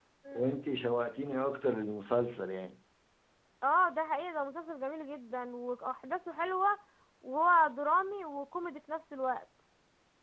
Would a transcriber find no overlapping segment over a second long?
Yes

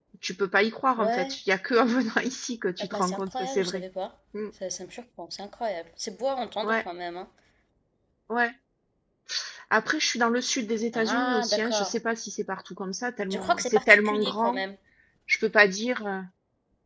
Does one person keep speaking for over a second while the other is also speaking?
Yes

